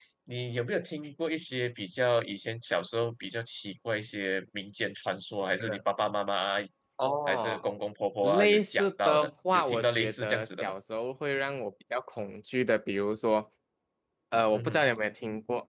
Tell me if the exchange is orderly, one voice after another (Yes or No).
No